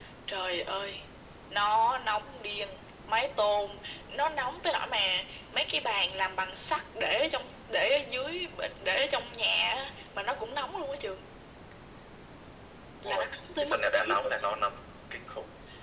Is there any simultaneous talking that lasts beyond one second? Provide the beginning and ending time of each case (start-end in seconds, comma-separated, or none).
13.0-14.3